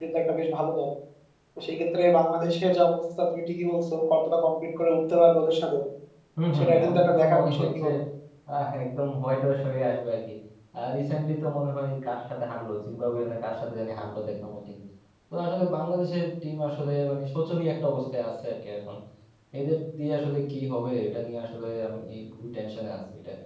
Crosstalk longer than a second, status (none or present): present